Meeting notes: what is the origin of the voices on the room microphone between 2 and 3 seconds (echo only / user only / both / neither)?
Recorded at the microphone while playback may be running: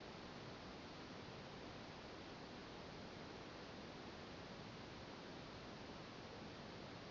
neither